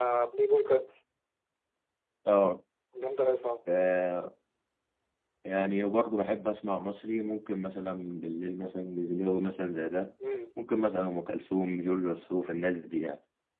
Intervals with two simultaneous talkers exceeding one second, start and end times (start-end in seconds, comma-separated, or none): none